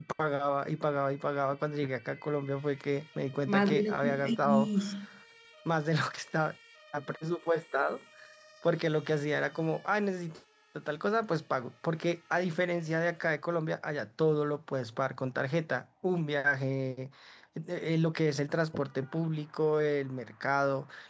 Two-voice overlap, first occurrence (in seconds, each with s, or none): 3.5 s